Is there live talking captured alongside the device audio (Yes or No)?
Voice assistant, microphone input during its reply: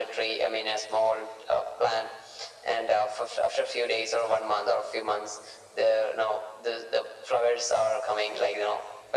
No